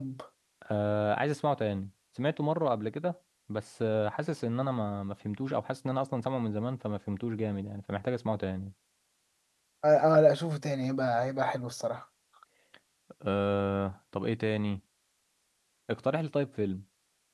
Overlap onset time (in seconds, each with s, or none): none